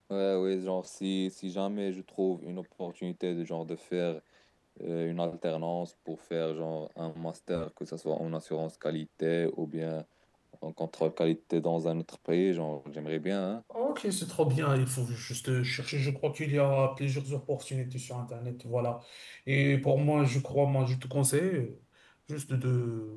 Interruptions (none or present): none